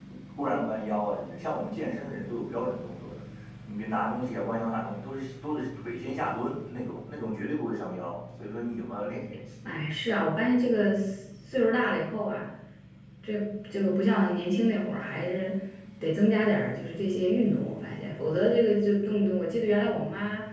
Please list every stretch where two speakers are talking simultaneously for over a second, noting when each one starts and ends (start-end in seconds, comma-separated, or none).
none